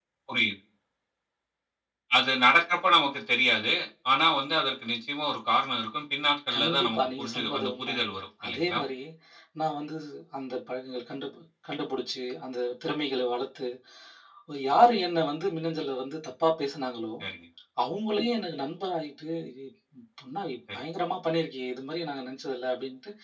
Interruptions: present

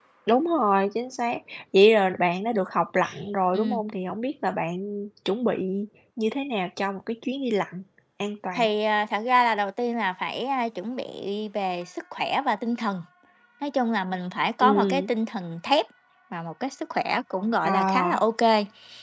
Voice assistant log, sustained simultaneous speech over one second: none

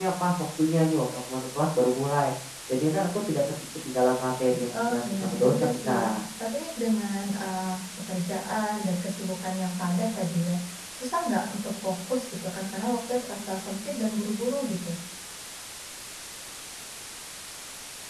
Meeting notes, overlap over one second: present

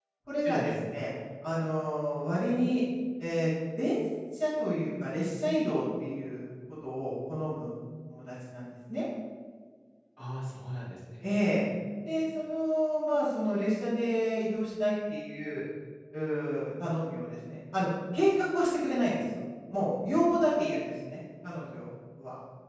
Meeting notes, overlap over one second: none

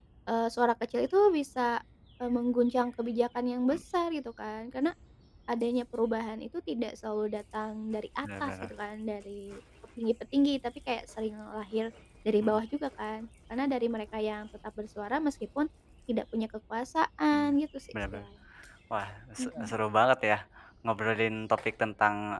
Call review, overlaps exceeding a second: none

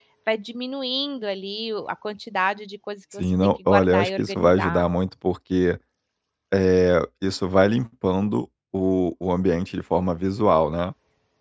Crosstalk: present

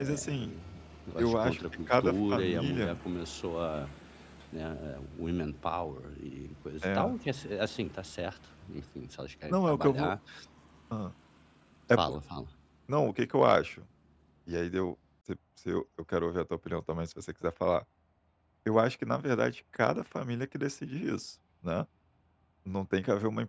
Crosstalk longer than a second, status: present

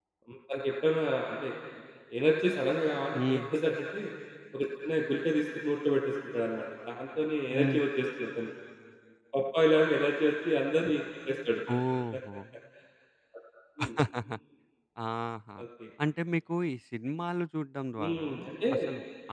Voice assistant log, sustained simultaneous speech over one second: none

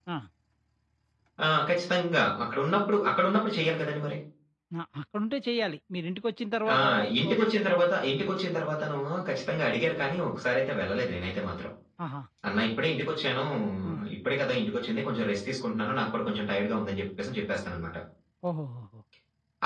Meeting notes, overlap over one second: none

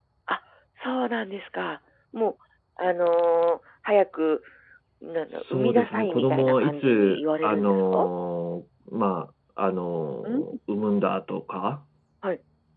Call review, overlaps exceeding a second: present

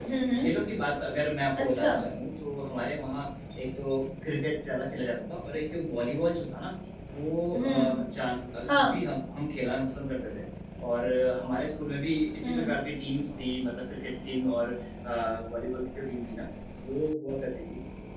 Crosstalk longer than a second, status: none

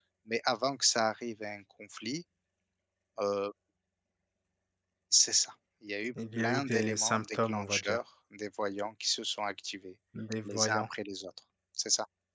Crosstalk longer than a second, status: present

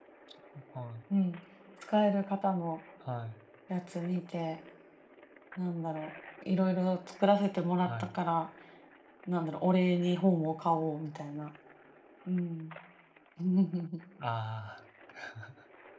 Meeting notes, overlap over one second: none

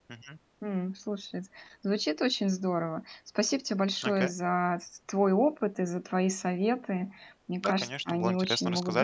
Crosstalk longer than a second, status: present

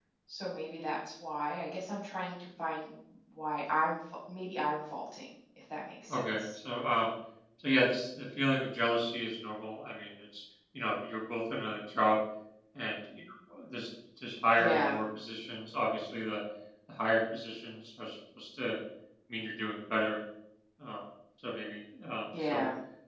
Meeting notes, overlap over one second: none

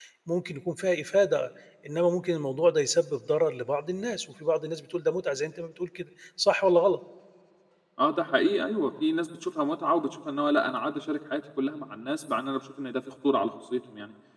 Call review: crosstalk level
none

